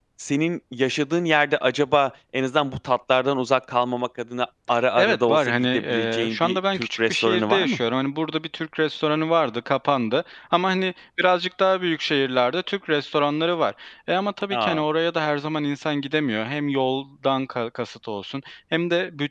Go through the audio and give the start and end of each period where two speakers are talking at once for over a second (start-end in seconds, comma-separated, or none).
5.0-7.8